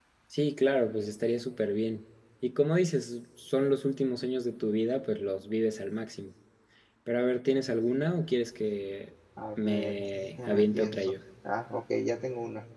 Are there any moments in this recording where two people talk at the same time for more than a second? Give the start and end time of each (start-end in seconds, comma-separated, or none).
9.6-11.1